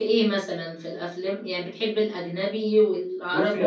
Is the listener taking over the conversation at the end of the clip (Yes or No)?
Yes